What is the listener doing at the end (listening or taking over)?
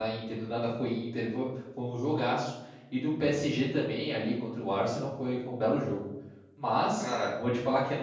listening